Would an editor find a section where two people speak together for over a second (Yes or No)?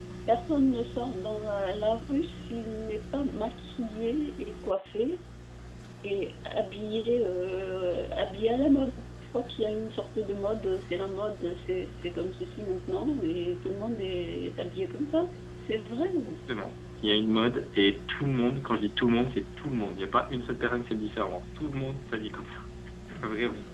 No